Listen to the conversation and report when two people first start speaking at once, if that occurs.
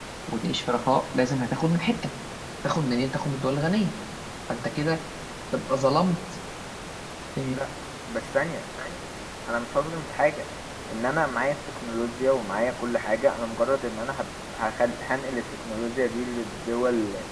none

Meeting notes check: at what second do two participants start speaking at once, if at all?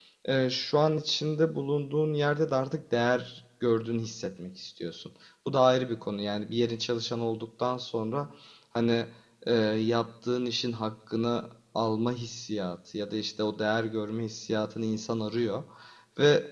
none

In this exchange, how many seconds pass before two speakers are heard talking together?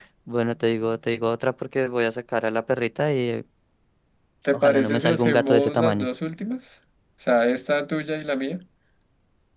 5 s

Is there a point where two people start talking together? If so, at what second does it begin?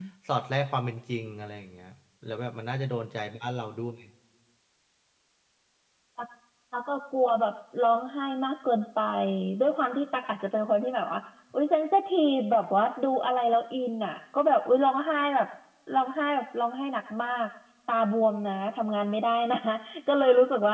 none

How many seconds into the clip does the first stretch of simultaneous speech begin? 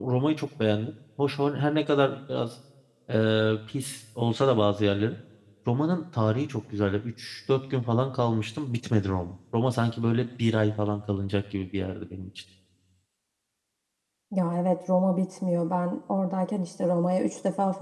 none

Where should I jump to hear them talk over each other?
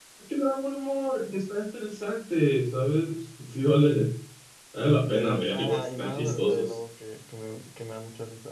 5 s

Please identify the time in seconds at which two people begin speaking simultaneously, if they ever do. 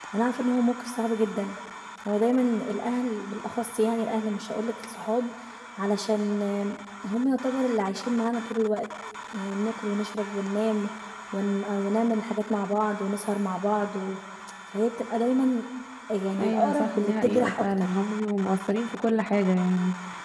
16 s

